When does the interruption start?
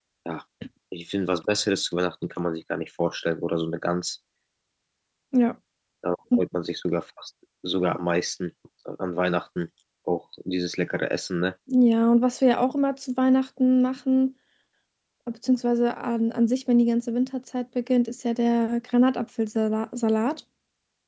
none

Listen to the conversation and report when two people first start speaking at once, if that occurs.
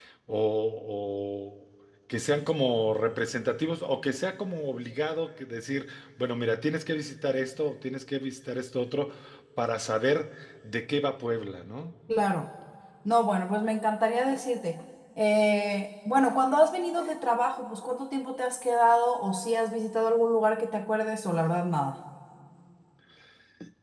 none

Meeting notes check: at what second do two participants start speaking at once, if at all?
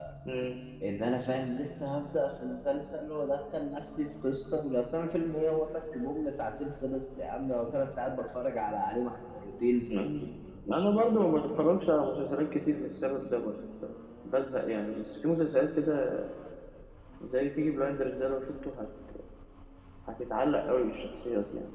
none

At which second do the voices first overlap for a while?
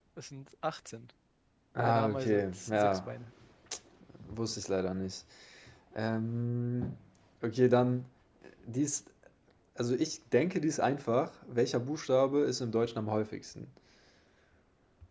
2 s

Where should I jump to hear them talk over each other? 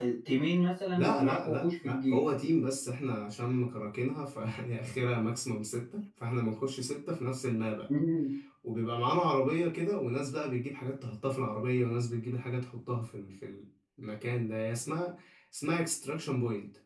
1 s

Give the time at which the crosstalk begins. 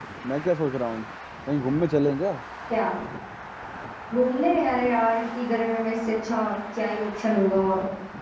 none

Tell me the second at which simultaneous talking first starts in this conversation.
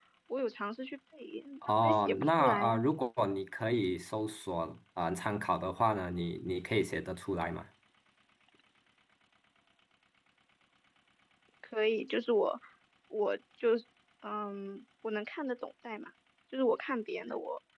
2 s

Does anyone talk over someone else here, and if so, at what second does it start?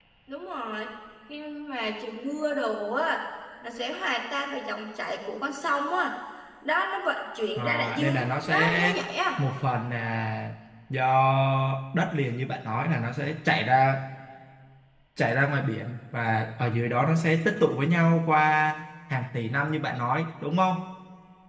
8 s

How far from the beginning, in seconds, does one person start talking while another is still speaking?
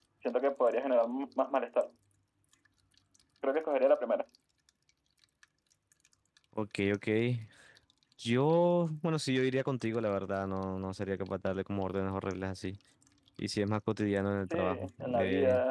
14 s

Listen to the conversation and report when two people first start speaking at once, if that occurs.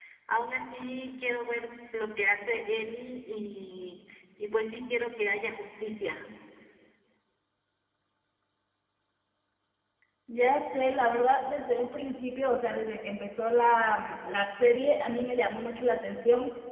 none

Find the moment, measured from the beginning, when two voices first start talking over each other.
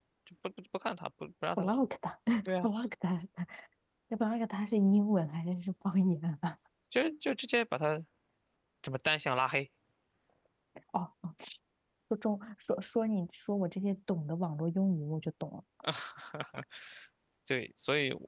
none

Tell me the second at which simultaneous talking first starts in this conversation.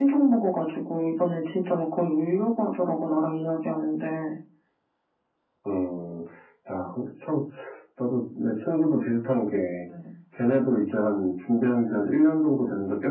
none

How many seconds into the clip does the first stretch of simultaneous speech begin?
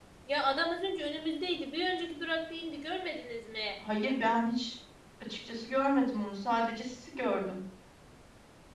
none

